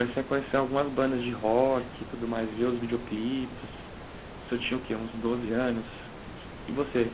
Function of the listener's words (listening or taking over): listening